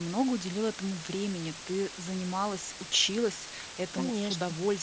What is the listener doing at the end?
listening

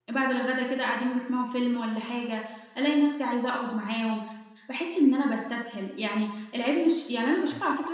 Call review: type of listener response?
listening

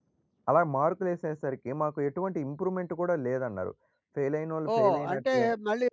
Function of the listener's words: taking over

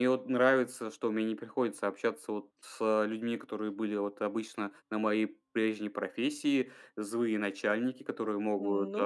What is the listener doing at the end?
listening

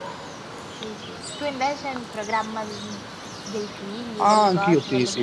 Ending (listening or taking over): taking over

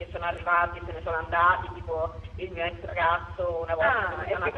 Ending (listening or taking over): taking over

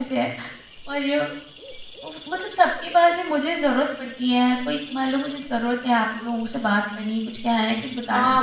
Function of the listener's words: taking over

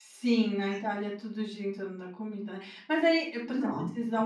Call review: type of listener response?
listening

